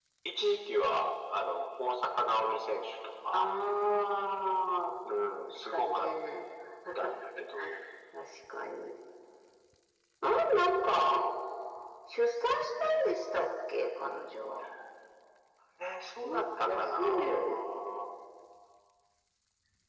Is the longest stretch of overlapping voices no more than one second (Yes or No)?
No